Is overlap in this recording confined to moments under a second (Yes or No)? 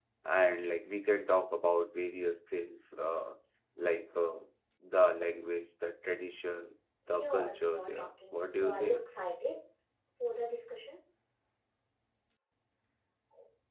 No